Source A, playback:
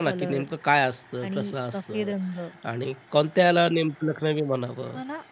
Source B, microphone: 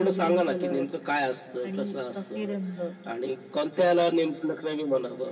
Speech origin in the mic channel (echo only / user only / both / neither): echo only